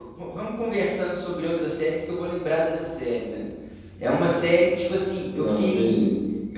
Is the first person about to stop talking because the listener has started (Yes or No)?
No